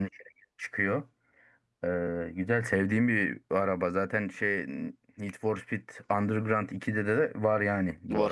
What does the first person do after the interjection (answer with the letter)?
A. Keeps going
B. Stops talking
A